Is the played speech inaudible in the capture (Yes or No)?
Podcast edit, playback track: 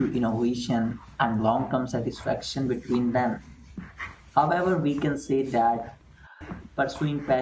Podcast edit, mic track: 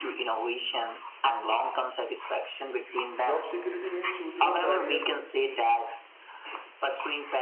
No